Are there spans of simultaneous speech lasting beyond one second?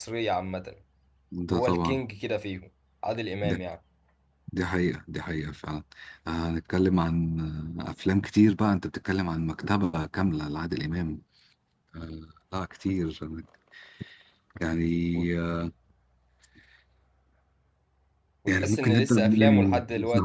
Yes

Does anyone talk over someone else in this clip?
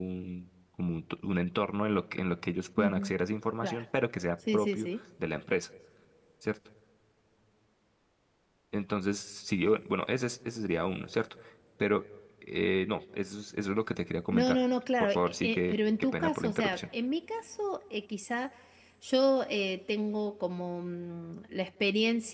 Yes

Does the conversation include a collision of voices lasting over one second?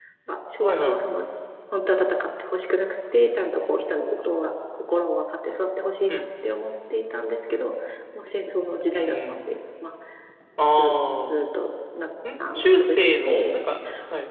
Yes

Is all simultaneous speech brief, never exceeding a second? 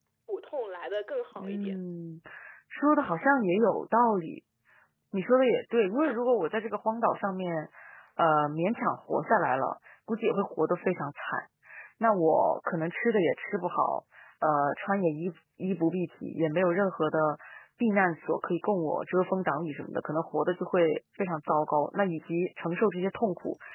Yes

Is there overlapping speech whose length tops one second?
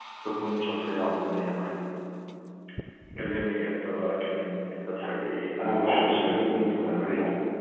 Yes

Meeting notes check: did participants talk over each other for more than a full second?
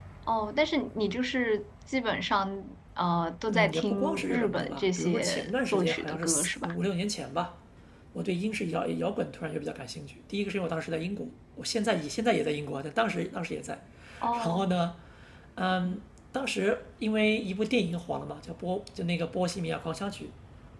Yes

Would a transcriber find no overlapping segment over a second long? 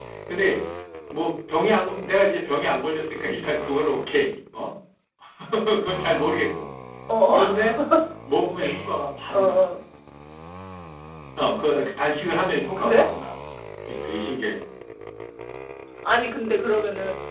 Yes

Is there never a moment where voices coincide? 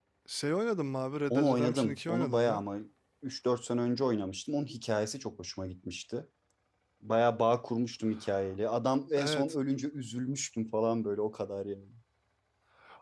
No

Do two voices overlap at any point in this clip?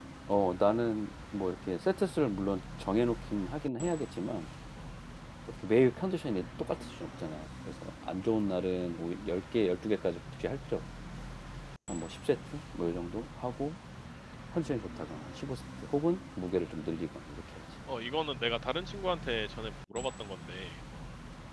No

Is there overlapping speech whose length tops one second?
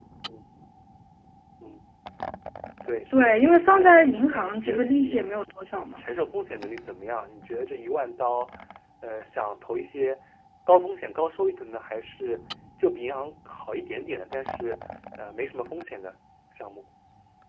Yes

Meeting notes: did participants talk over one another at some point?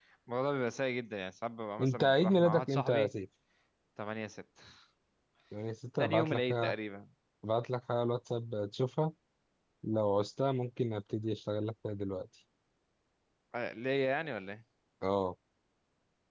Yes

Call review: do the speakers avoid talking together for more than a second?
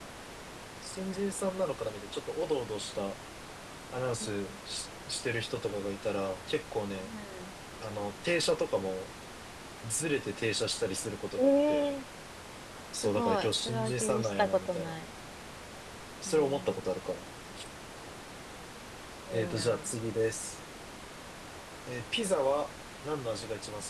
No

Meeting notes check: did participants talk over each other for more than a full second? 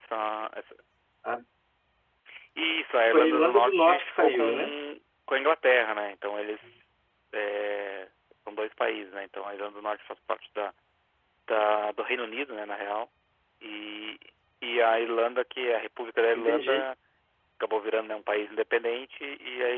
Yes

